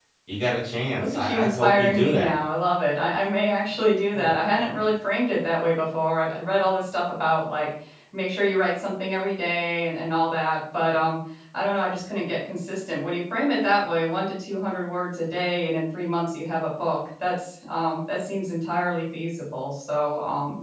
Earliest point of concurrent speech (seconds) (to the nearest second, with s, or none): 1 s